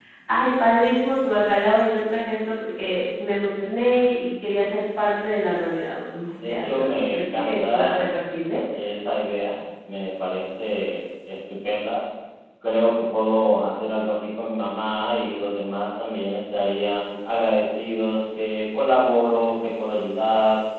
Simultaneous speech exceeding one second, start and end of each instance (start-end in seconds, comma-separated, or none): 6.4-8.1